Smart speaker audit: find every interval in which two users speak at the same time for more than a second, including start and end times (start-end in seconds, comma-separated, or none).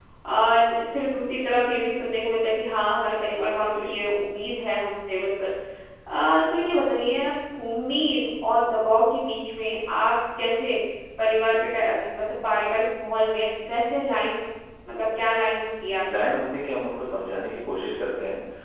none